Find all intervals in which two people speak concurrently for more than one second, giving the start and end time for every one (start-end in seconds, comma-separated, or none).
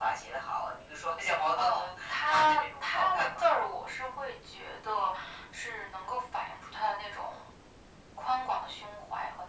1.6-3.4